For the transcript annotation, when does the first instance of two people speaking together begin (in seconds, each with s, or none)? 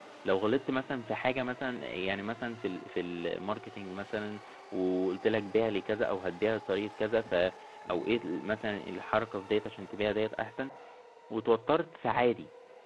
none